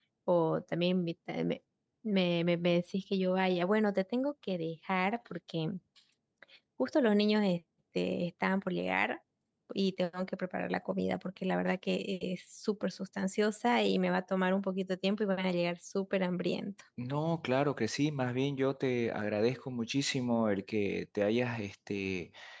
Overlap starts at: none

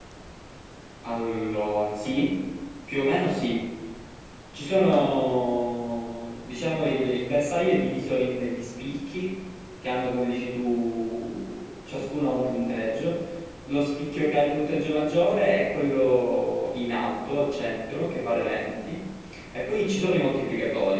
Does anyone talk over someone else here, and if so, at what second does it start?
none

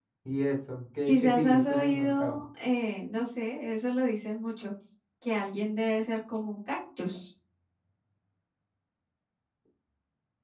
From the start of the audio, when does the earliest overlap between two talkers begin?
1 s

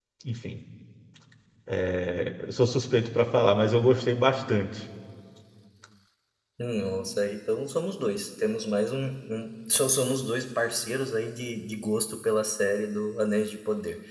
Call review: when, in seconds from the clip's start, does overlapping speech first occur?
none

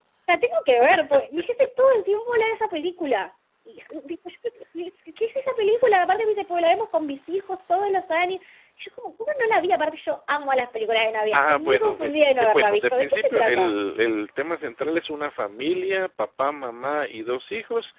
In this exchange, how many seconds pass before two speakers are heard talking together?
11 s

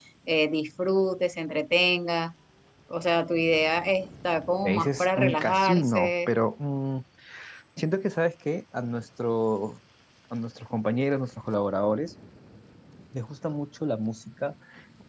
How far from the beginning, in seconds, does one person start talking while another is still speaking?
5 s

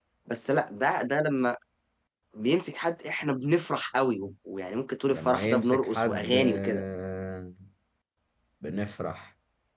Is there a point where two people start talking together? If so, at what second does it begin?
5 s

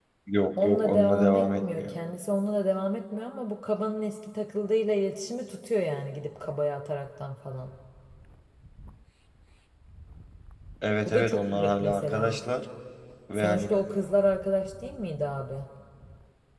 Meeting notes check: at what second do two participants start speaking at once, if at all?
1 s

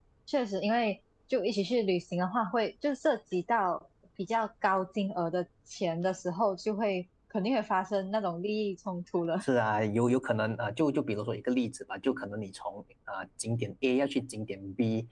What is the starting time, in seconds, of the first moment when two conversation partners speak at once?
none

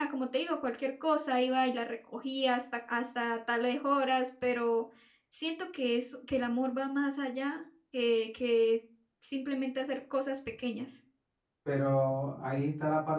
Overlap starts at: none

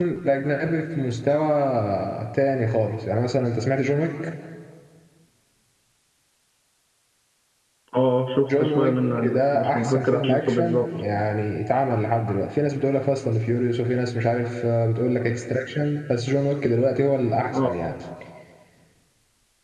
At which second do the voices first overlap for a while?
9 s

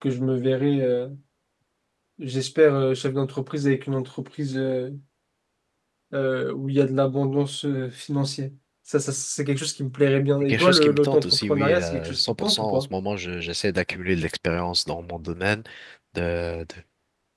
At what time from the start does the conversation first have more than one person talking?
10 s

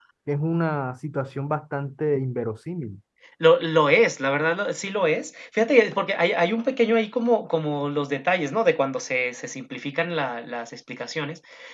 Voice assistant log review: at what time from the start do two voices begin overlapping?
none

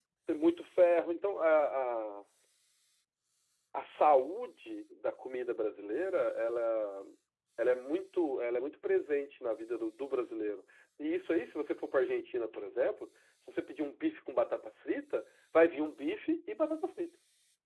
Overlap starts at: none

